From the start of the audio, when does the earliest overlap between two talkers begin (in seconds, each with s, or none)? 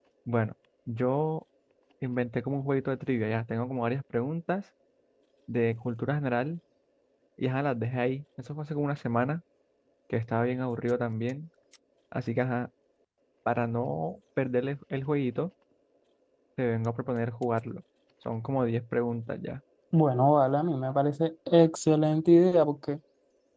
none